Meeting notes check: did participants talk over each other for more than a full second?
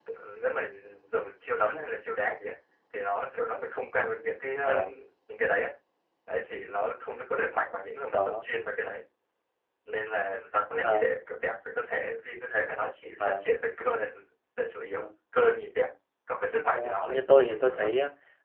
Yes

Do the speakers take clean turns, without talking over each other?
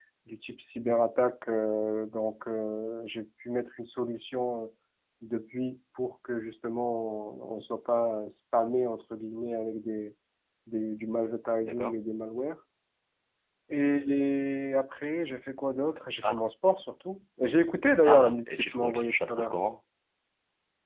No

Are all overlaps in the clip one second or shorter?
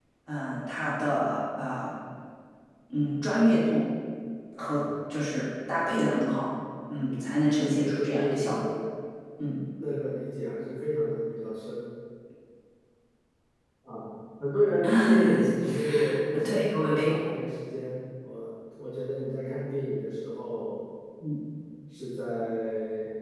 No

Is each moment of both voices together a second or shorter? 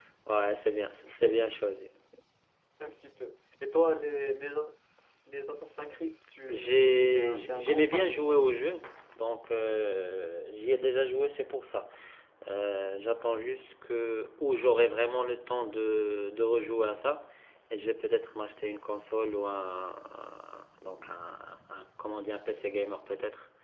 No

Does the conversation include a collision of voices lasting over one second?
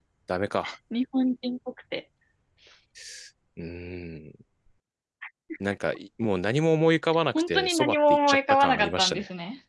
Yes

